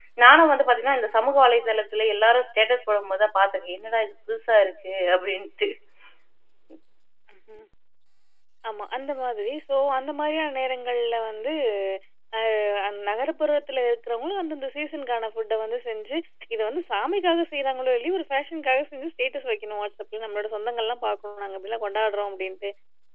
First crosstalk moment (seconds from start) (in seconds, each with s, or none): none